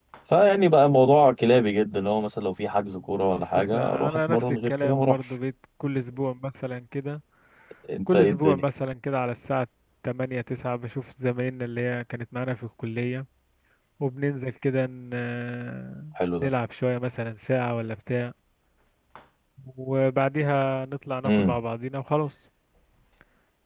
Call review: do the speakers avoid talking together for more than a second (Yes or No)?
No